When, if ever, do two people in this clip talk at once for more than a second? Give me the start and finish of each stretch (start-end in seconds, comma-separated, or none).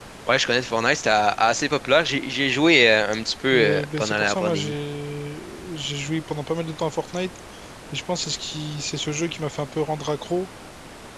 3.5-4.7